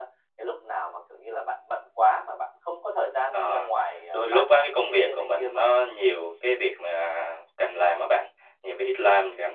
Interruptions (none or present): present